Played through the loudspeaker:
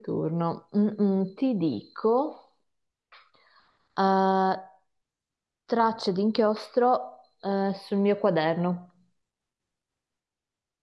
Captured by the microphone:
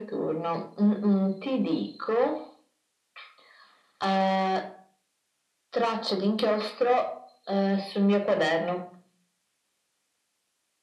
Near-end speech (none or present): none